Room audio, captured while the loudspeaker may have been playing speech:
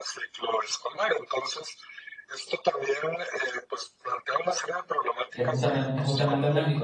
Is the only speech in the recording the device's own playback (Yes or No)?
No